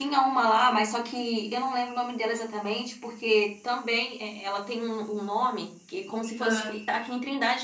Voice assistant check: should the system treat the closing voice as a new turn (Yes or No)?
No